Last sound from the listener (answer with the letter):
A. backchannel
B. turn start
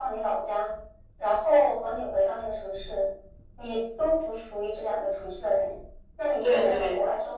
A